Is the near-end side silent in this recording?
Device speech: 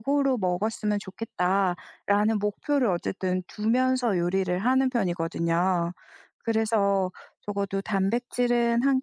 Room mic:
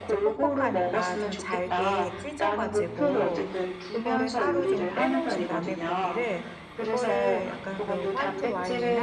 No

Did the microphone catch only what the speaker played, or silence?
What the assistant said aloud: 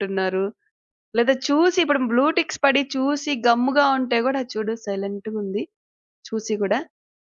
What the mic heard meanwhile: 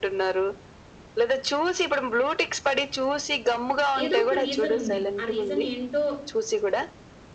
No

